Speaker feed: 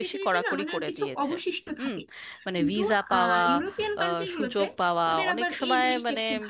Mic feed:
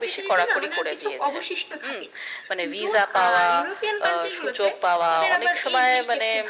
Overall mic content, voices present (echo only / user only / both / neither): echo only